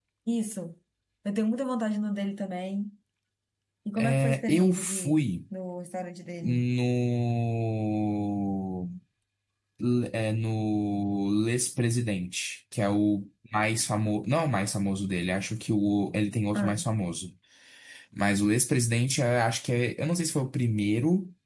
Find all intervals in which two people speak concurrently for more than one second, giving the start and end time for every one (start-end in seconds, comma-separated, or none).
4.0-5.2